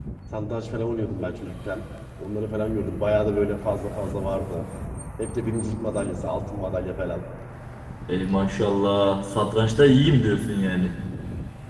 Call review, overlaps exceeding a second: none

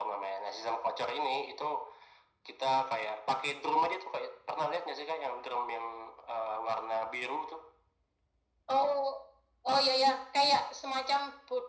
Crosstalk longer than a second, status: none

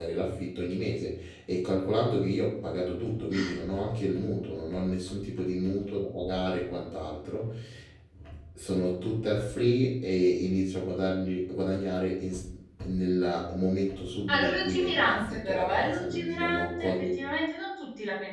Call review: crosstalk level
present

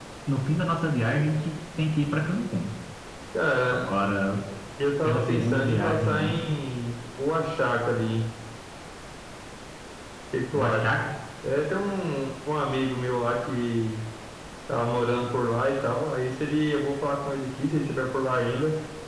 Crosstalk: present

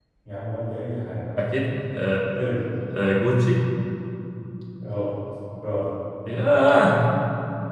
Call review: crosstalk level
none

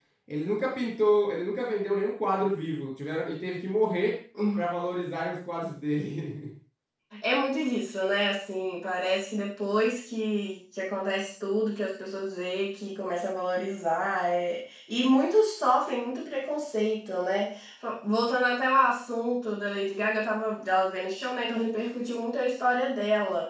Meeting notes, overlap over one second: none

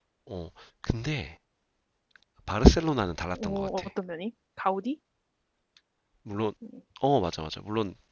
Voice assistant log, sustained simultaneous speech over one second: none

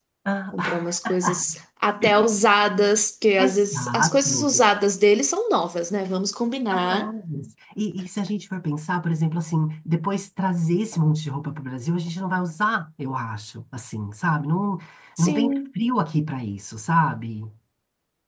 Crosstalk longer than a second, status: present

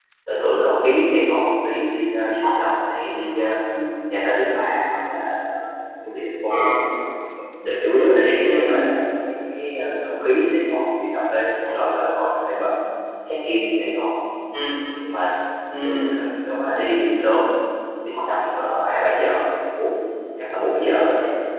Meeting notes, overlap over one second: none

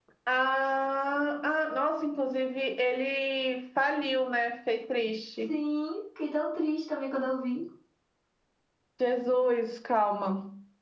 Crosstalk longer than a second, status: none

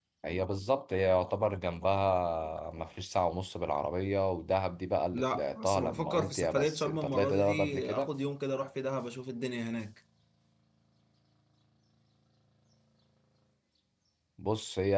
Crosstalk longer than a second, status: present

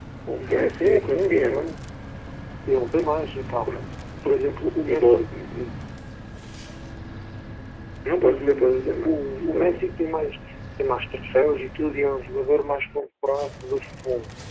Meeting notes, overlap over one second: present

